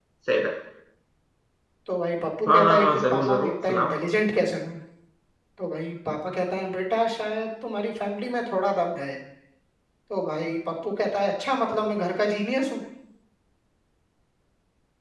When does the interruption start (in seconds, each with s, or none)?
2.5 s